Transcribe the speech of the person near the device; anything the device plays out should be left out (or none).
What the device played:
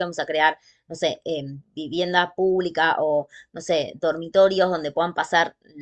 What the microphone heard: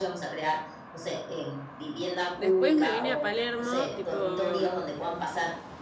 después me vine a Palermo, tipo,